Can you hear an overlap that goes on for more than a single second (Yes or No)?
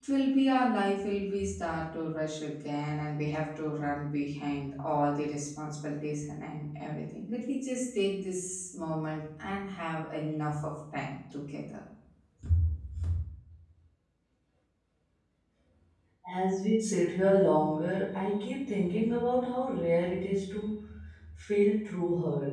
No